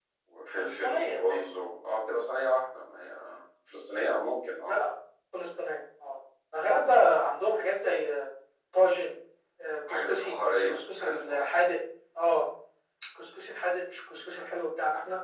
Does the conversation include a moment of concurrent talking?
Yes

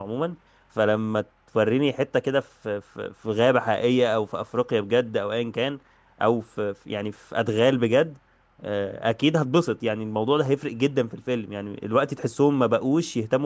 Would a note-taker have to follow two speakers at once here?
No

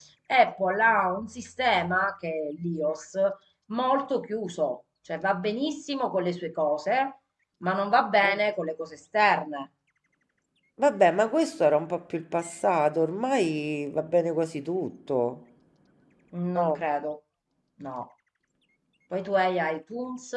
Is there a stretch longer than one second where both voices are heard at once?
No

